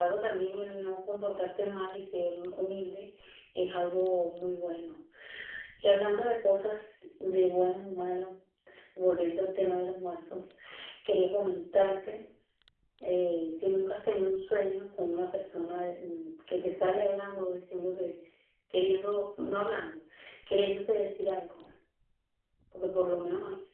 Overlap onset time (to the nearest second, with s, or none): none